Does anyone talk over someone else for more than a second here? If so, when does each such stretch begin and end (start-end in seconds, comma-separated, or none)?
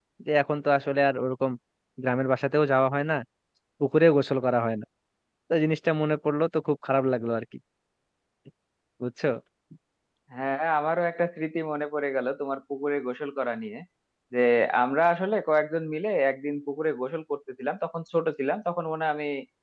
none